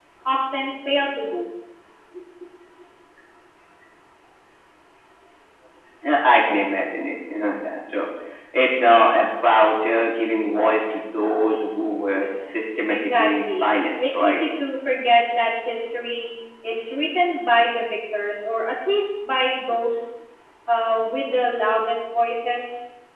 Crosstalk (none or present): present